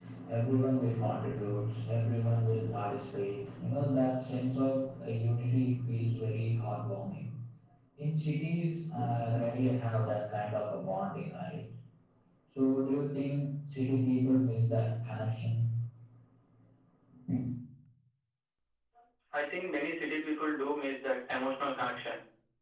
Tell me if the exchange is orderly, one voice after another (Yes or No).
Yes